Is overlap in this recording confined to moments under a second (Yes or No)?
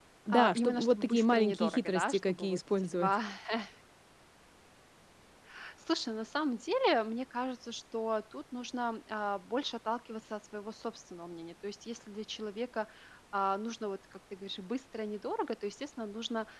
No